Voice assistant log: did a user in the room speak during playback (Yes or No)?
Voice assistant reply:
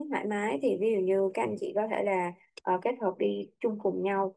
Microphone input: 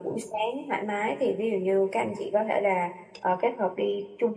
No